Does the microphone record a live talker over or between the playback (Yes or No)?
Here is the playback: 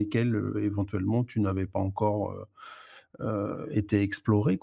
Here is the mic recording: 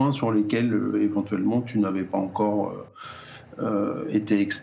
No